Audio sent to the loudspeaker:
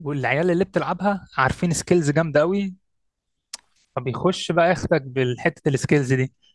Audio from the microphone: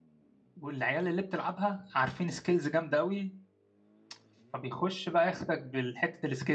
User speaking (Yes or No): No